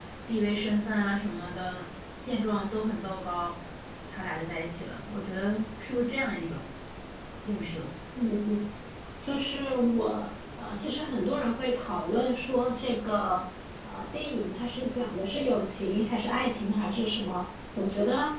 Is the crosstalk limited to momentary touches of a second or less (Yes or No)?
Yes